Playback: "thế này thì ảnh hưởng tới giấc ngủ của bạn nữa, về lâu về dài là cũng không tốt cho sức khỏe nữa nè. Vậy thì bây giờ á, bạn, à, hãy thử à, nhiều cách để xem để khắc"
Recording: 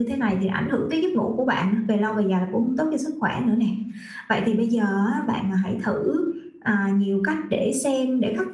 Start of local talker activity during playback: none

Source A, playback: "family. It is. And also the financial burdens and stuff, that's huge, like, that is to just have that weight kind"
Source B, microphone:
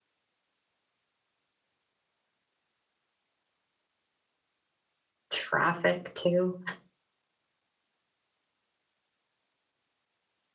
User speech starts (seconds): 5.3 s

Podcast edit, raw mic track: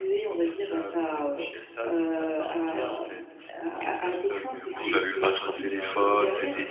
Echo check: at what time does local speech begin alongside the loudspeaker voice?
4.4 s

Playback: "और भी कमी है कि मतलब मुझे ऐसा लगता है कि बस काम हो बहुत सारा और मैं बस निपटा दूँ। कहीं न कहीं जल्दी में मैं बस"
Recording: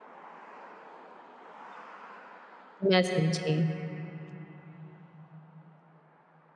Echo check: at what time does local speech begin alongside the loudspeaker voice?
2.9 s

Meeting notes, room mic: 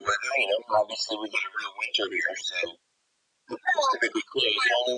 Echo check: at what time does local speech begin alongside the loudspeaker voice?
none

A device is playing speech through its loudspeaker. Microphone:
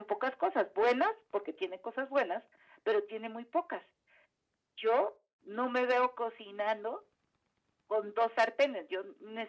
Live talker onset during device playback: none

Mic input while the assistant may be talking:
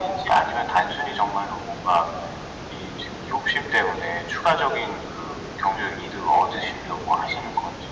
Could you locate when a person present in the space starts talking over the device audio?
none

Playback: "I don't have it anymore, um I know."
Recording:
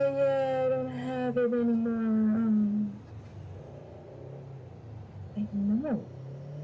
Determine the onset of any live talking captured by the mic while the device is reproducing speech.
none

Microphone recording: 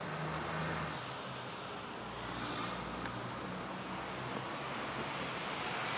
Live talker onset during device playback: none

